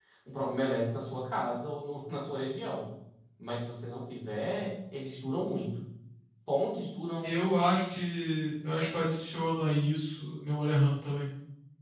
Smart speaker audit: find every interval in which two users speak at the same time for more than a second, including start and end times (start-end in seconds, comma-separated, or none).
none